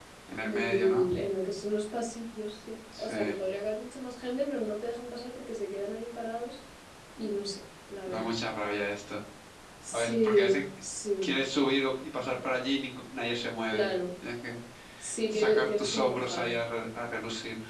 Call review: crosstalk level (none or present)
present